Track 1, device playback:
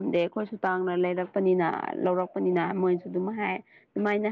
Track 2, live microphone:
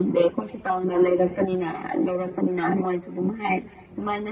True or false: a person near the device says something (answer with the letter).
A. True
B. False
B